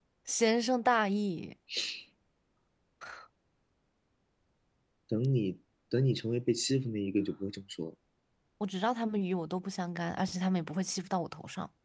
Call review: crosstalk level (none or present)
none